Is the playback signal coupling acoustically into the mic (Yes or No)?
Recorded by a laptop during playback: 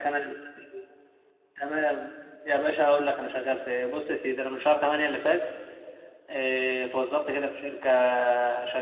No